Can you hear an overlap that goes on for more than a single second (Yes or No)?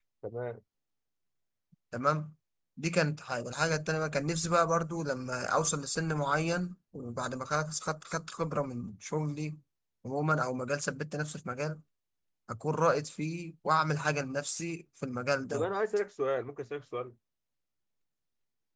No